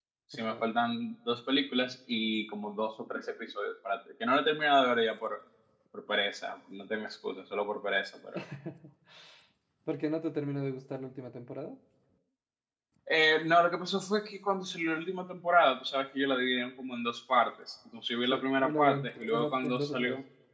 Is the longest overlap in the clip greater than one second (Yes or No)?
Yes